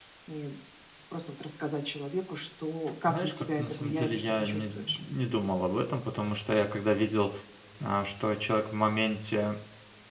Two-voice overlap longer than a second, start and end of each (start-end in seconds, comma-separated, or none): 3.1-5.0